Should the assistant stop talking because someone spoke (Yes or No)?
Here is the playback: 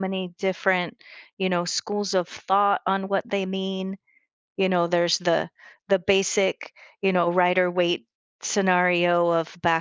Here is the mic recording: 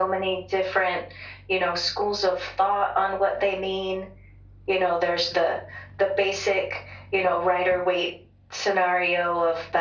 No